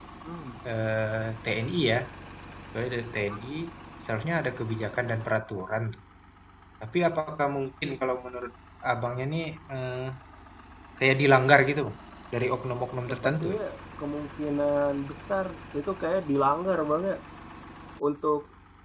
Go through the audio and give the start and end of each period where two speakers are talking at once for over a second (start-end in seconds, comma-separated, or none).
none